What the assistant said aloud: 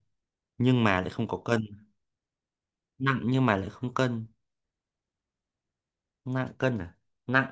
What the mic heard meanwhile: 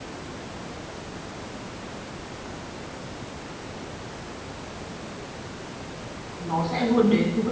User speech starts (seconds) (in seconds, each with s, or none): 6.4 s